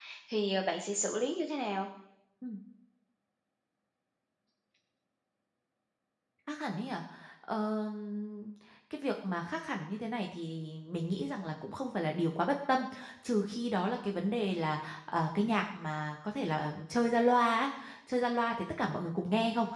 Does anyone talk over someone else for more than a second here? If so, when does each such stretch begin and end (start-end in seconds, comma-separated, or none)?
none